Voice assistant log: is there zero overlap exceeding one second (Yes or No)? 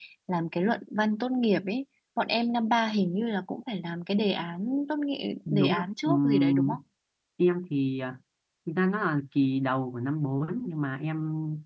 No